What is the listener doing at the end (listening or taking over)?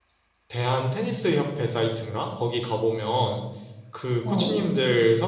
listening